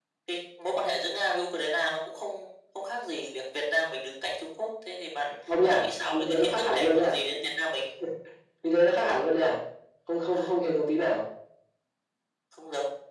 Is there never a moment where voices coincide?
No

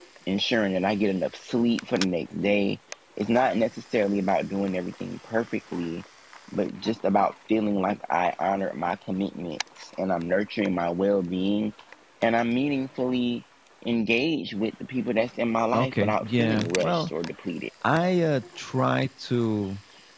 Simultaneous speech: Yes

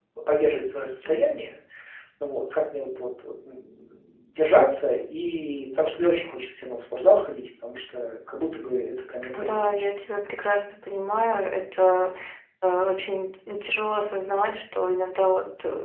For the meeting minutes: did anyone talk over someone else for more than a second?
No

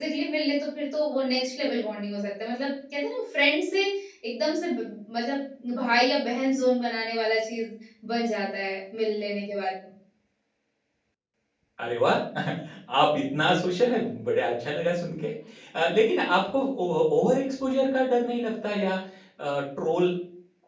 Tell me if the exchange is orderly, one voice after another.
Yes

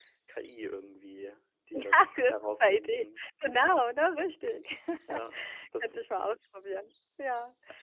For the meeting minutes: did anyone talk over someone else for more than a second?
Yes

